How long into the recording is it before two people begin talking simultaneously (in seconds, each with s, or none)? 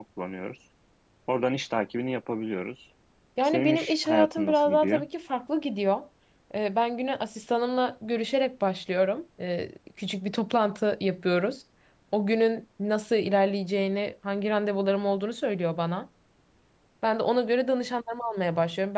3.4 s